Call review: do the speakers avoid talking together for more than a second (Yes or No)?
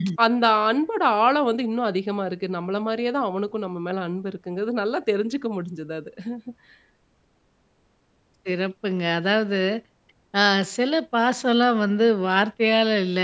Yes